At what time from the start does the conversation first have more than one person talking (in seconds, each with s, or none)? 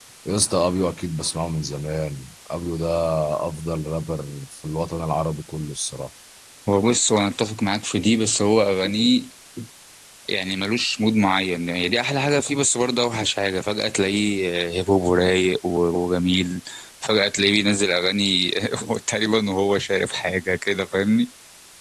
none